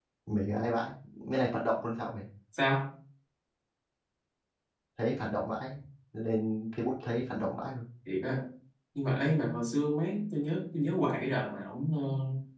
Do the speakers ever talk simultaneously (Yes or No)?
No